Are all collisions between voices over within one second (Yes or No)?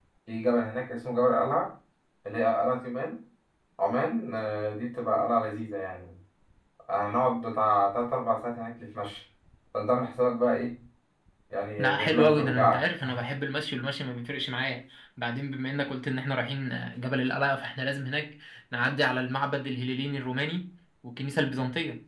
No